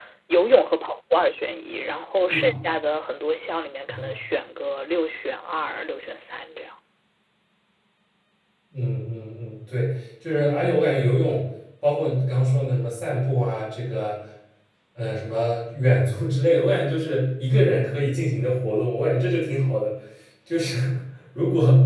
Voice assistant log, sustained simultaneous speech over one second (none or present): none